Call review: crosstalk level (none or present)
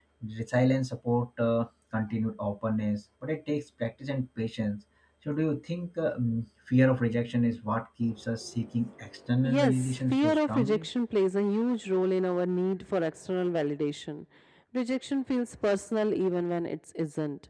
present